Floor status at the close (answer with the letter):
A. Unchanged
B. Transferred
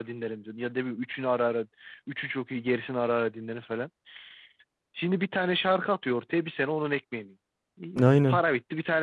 A